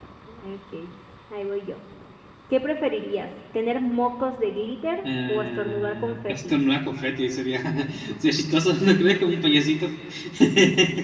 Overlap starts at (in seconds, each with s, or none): 5.0 s